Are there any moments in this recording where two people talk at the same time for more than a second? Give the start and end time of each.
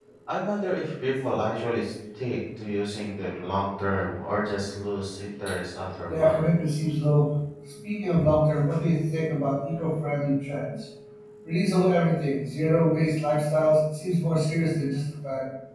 none

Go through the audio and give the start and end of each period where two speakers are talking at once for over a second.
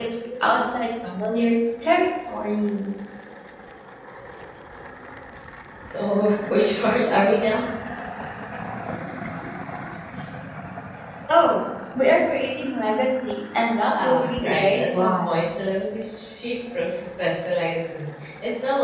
13.9-15.4

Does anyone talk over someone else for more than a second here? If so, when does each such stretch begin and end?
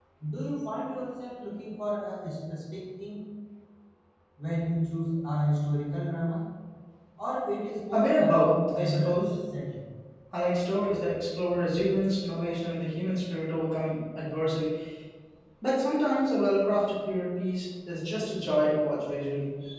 7.9-9.3

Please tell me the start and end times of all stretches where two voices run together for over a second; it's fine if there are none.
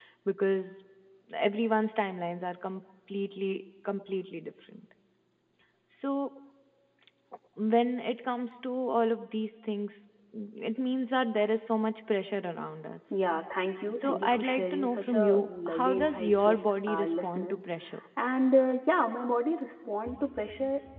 14.0-17.6

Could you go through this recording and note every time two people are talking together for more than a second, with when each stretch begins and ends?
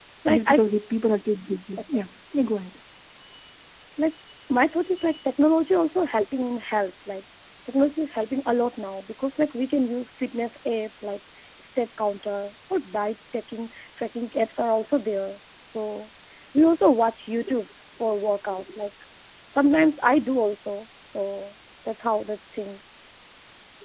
none

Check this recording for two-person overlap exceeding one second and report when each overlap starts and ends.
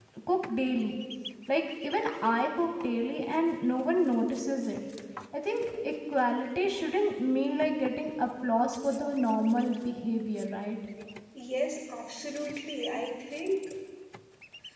none

